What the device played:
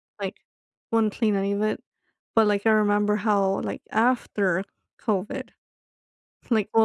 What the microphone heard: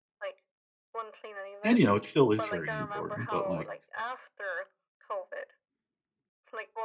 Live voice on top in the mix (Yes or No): Yes